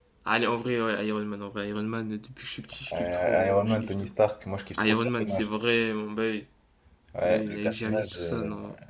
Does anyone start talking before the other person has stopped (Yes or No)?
Yes